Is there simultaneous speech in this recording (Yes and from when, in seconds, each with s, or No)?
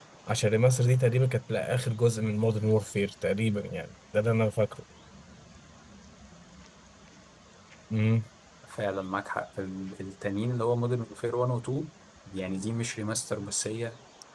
No